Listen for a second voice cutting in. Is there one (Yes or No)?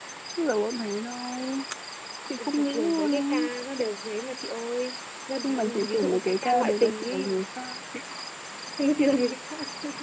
Yes